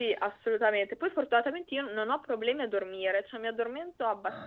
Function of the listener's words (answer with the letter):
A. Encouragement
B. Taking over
A